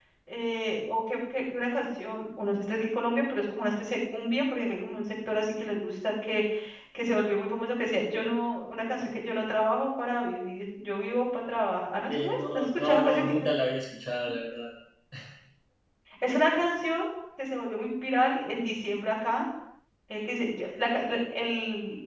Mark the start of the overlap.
12.1 s

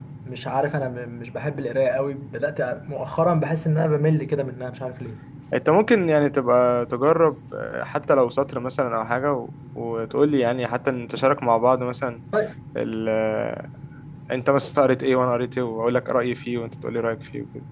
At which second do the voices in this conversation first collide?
none

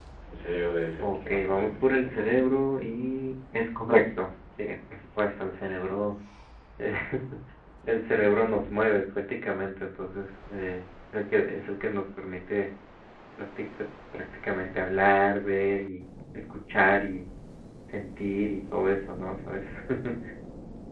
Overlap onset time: 1.0 s

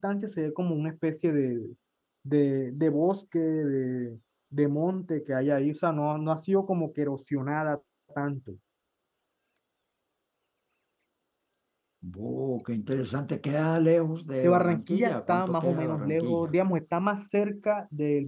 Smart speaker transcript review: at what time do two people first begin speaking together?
14.4 s

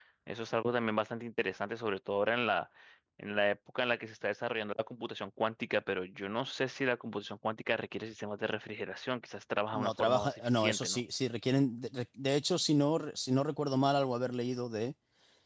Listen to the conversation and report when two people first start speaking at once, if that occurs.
9.7 s

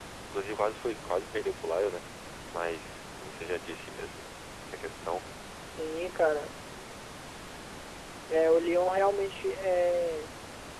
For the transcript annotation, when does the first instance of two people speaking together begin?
none

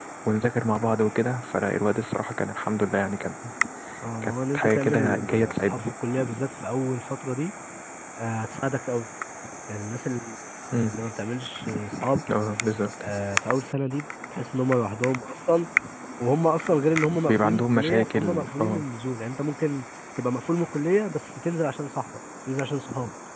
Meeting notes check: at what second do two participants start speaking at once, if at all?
4.2 s

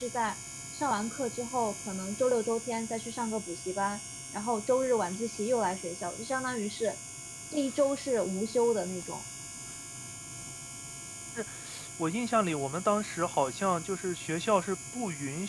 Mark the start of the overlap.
none

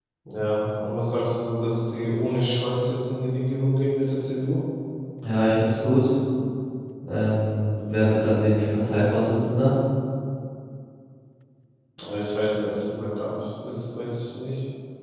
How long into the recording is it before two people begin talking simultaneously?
none

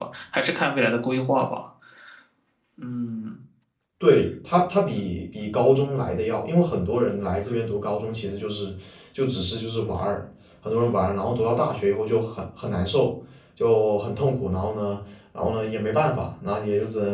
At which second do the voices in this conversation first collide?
none

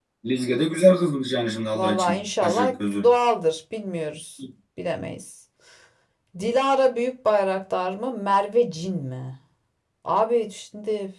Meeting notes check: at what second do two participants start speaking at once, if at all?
1.7 s

